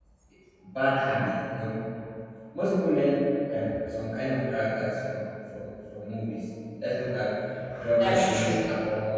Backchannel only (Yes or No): Yes